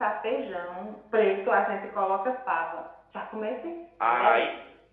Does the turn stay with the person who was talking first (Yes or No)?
No